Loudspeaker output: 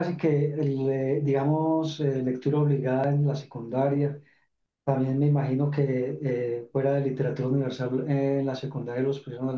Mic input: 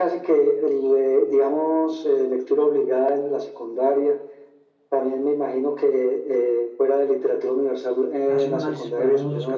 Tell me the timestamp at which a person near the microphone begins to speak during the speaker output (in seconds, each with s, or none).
8.3 s